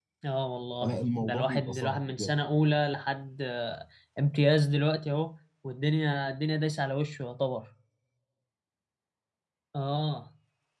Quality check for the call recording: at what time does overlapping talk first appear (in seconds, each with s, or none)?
0.8 s